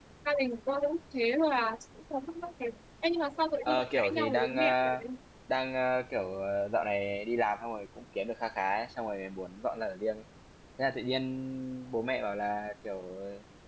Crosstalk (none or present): present